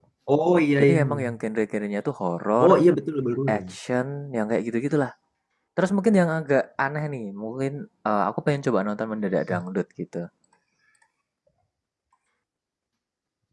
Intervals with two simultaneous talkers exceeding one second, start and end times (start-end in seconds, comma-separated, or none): none